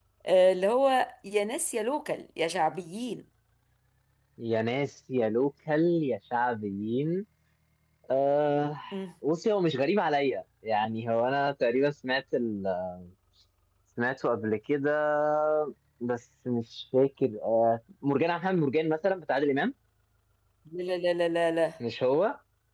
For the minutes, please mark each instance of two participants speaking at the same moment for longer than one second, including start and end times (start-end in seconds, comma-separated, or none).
none